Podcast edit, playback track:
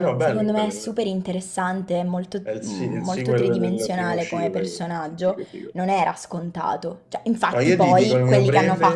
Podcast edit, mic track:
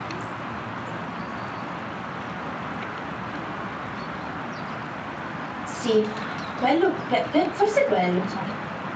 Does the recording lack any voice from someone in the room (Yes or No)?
No